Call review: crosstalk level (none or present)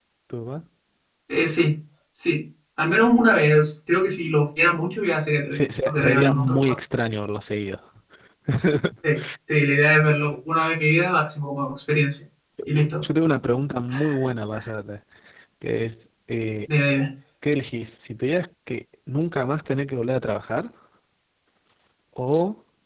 present